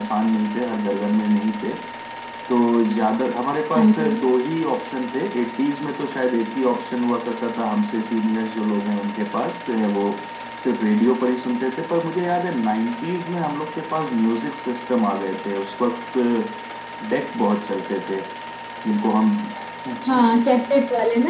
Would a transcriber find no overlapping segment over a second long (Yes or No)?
Yes